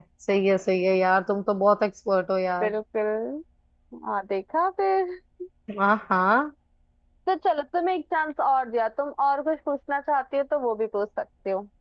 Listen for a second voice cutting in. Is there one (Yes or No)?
No